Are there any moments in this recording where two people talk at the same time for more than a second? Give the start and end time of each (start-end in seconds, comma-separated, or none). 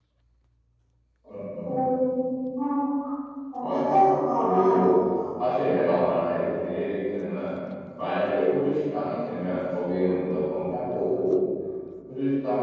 3.6-4.9